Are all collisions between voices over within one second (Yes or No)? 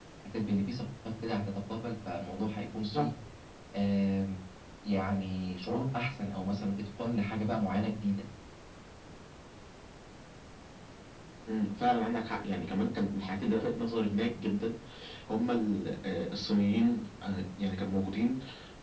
Yes